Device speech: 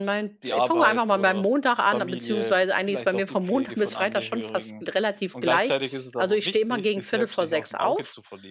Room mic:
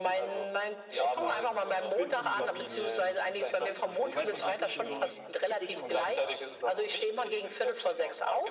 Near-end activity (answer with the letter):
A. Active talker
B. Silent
A